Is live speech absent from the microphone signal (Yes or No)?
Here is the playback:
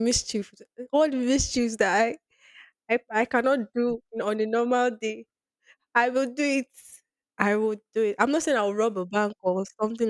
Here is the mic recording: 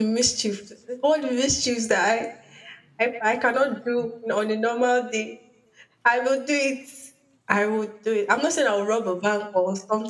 Yes